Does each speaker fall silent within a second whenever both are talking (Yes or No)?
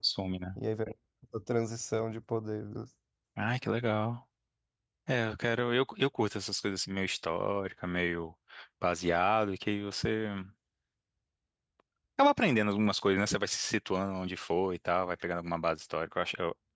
Yes